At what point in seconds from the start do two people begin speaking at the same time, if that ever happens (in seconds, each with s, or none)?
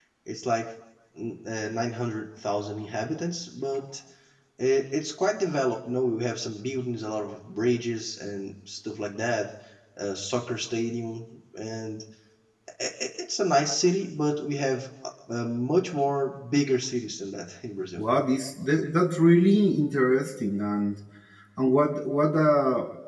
none